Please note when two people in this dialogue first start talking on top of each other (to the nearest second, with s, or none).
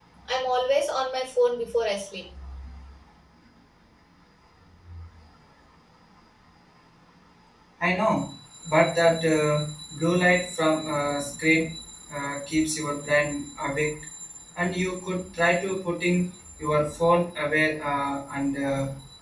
none